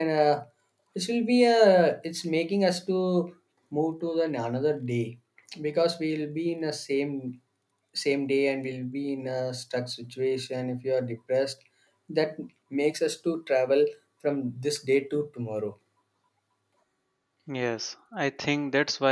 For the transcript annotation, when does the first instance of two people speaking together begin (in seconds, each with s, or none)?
none